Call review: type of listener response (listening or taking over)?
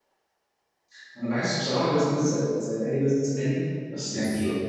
taking over